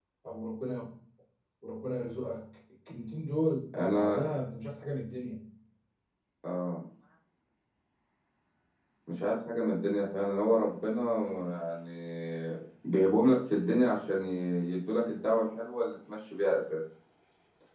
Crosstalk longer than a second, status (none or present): none